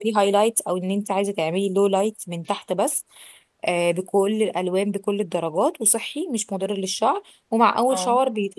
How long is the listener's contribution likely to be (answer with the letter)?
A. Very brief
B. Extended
A